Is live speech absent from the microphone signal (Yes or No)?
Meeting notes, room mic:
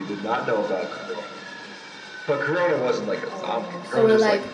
No